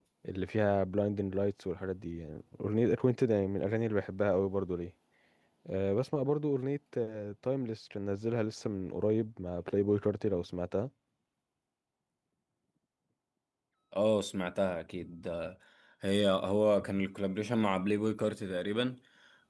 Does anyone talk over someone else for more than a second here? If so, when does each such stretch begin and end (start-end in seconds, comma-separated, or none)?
none